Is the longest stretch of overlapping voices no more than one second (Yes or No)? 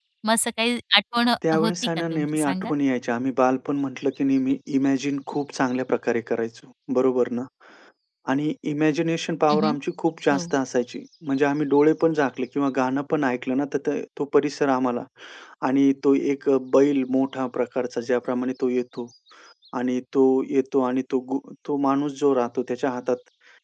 No